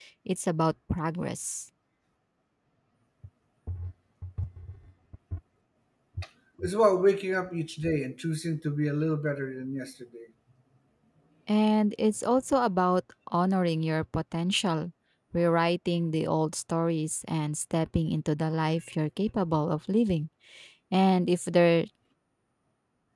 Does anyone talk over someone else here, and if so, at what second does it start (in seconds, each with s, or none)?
none